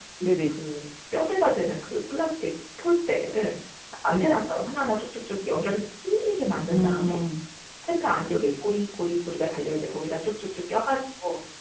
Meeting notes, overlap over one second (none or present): none